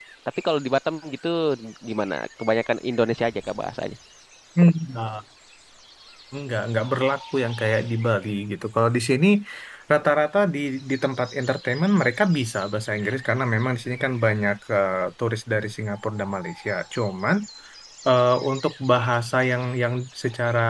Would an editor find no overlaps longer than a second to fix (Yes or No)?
Yes